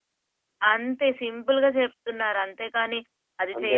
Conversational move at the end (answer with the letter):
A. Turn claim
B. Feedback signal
B